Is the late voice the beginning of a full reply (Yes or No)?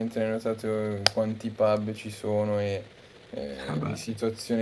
No